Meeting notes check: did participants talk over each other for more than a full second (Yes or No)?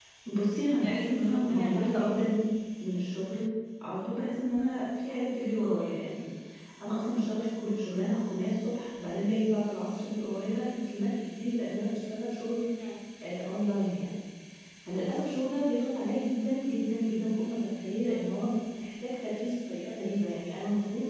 Yes